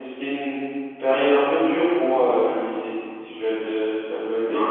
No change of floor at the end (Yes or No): No